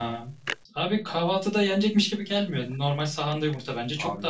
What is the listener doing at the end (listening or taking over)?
taking over